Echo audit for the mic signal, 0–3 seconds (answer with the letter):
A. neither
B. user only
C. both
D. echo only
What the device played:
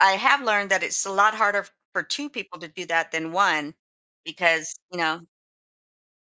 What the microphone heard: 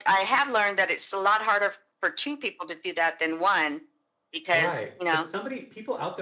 D